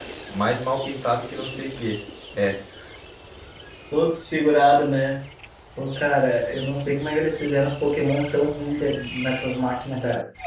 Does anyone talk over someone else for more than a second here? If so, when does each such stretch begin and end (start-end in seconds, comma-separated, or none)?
none